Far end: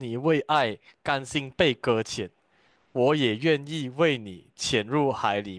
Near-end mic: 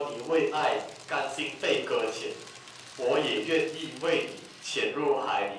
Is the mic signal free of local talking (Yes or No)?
Yes